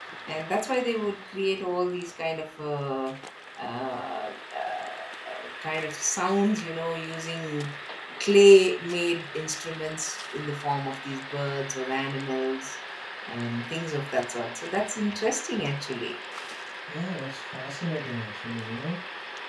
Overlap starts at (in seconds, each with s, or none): none